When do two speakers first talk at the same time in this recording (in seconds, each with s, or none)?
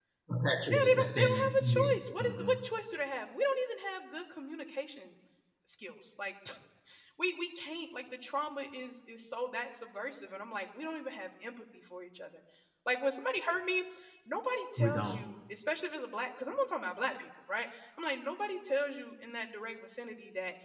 0.7 s